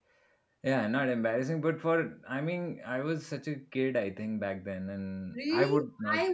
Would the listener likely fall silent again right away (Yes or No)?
No